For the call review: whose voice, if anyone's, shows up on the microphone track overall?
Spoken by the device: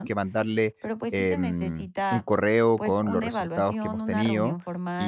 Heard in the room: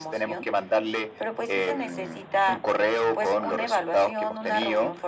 echo only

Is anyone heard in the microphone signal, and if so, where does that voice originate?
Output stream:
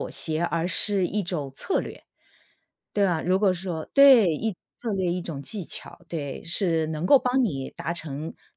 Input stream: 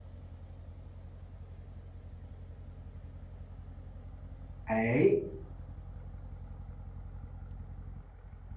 user only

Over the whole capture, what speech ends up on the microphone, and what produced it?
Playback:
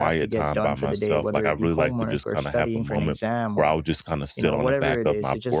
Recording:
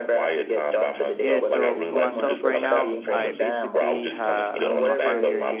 both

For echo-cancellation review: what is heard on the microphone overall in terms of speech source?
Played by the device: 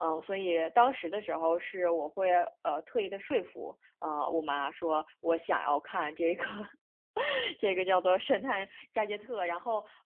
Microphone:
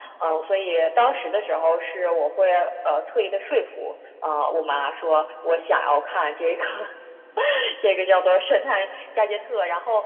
echo only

